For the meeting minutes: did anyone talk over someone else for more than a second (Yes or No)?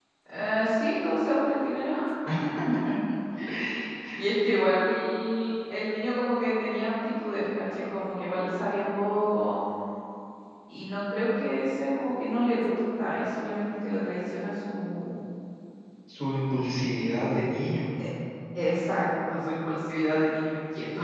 No